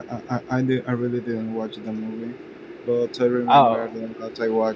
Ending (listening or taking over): listening